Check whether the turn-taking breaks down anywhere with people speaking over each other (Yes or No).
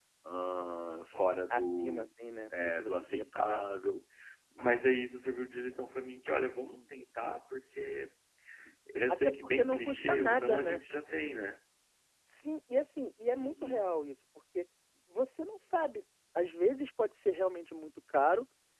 Yes